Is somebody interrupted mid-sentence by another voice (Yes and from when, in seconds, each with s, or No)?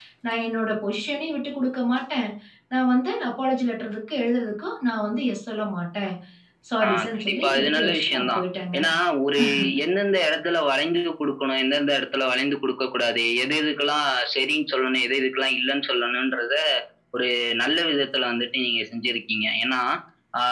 Yes, from 6.8 s